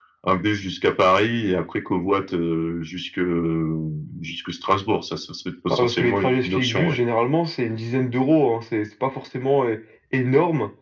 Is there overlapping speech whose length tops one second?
Yes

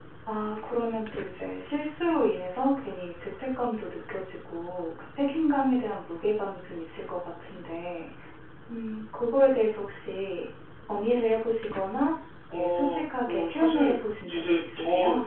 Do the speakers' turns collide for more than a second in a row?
Yes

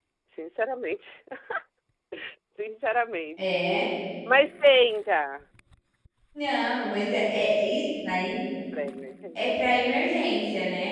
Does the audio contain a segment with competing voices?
No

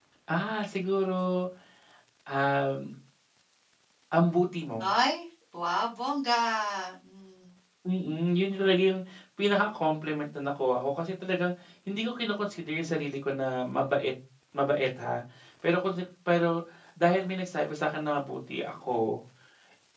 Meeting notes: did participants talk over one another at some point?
No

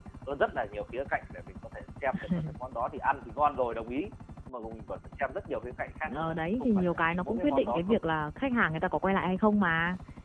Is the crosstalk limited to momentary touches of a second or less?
No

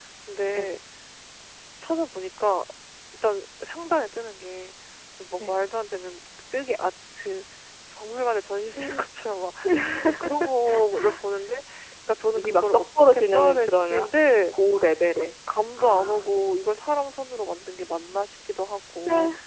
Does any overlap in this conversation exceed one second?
Yes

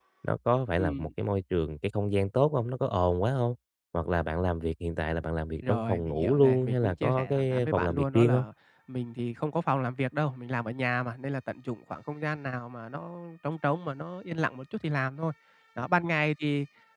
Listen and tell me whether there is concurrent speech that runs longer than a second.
Yes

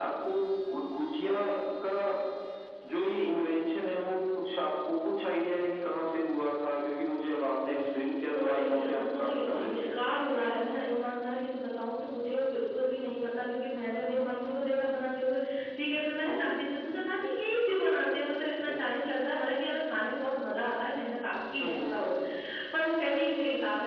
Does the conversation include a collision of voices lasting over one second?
Yes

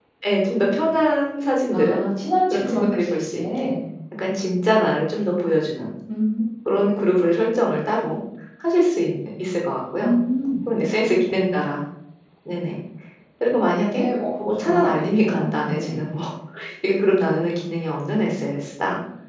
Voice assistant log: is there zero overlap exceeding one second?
No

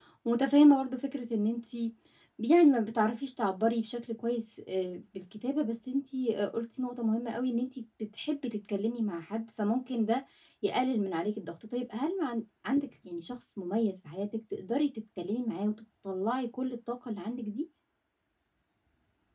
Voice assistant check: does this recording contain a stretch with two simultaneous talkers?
No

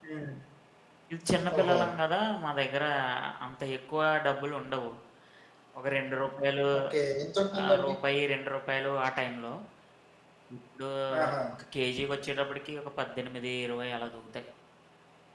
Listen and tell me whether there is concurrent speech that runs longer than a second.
No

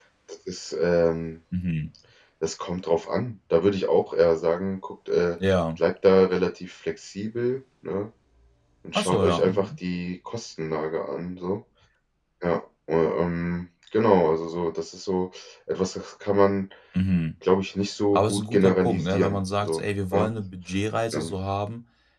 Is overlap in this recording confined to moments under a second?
No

